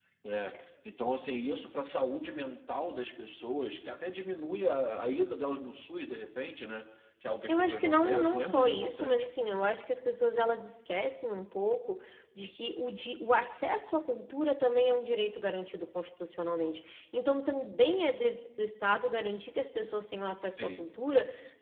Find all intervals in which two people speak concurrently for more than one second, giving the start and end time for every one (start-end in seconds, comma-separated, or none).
7.5-9.3